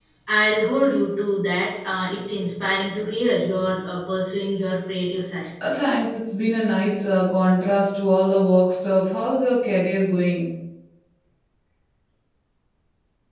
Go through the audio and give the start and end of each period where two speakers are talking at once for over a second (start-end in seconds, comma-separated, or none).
none